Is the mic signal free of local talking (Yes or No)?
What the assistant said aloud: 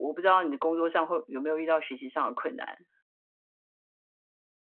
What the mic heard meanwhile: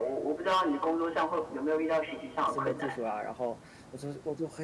No